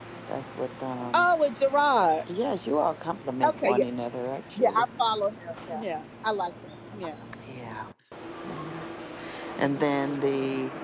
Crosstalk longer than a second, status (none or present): none